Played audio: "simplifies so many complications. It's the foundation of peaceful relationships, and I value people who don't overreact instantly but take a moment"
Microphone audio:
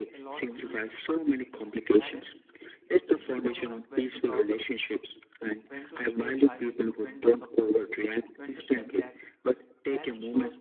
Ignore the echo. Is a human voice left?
Yes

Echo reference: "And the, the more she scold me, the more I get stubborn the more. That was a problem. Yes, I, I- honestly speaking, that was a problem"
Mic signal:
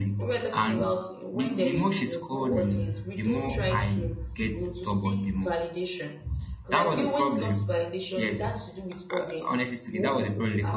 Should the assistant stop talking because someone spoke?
Yes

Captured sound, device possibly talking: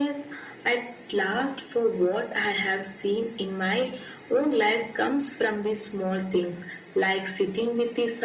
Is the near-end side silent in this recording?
Yes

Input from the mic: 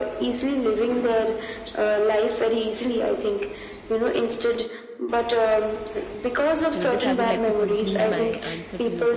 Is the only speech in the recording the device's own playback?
No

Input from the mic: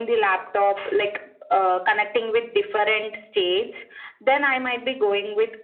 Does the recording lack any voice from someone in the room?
Yes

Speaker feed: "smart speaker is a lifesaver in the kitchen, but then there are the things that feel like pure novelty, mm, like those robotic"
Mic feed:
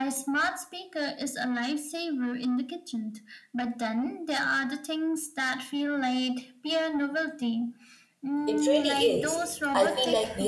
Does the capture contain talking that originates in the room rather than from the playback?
Yes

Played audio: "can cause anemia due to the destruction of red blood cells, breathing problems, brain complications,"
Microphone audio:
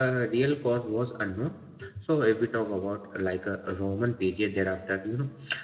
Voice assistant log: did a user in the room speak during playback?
Yes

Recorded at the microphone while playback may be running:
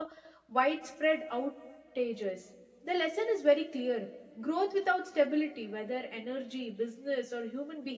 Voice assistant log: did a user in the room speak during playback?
Yes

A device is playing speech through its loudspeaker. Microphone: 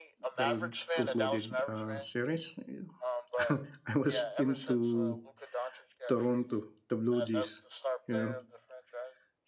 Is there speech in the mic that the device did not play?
Yes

